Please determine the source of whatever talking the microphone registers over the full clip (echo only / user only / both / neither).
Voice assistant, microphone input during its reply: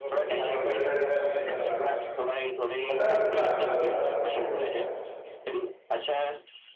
both